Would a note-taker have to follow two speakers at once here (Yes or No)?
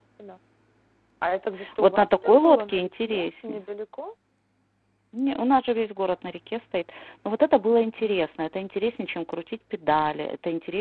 Yes